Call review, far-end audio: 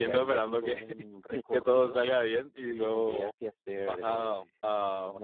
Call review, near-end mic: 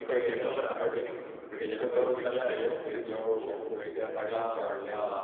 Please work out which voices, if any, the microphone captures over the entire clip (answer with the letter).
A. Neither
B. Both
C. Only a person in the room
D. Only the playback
B